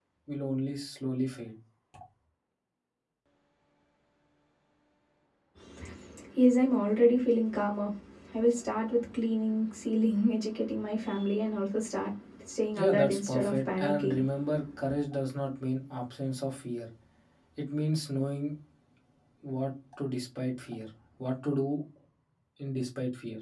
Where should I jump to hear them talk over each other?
12.7 s

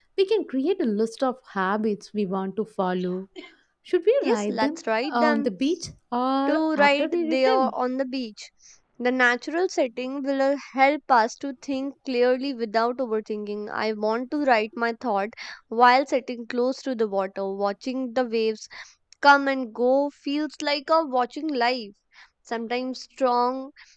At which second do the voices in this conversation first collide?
4.2 s

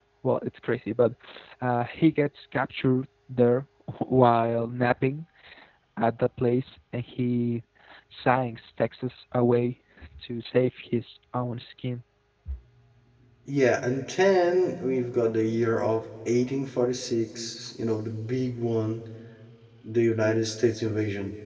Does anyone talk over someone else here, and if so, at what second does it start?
none

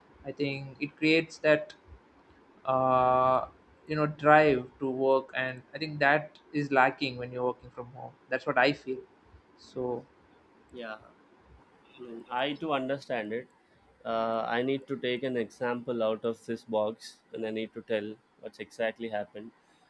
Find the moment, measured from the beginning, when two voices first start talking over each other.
none

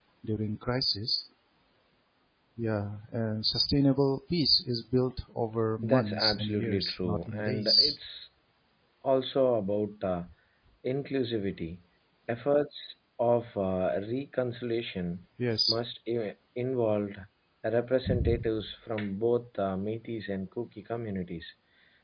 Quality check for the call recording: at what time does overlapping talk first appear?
5.8 s

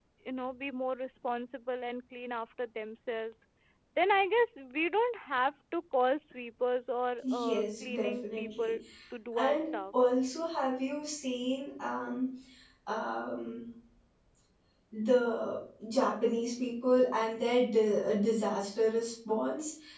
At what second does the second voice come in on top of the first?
7.2 s

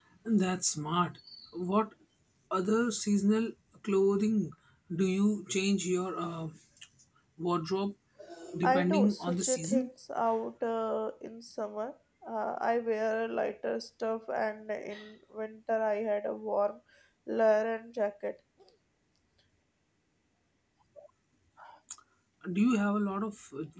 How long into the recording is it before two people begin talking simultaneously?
8.6 s

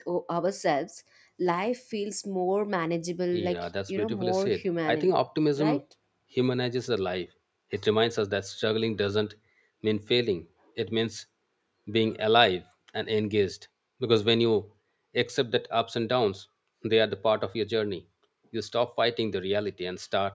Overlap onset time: 3.3 s

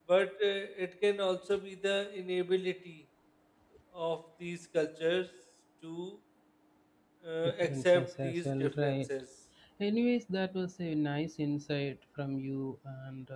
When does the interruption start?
7.4 s

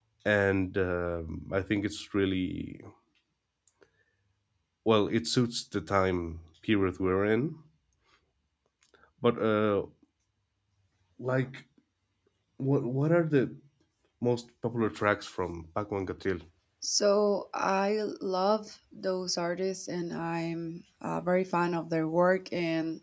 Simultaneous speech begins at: none

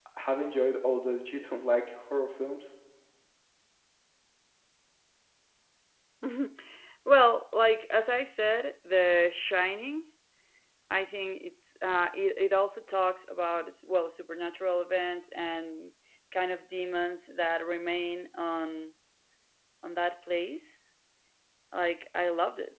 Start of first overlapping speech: none

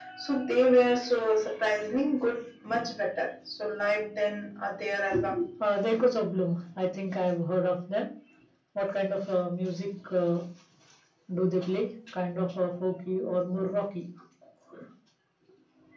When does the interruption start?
none

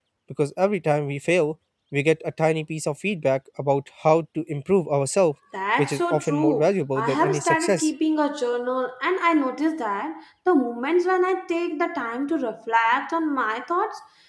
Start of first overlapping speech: 5.5 s

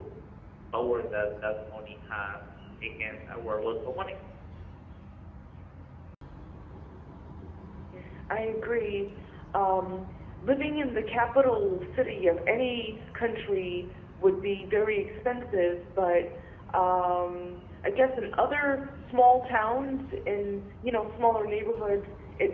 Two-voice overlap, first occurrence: none

